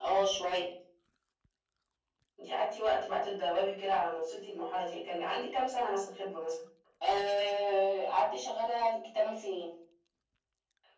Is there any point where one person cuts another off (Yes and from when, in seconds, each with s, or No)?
No